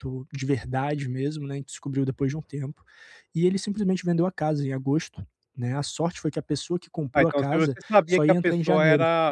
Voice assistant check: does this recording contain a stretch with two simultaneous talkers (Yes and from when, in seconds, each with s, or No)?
Yes, from 7.2 s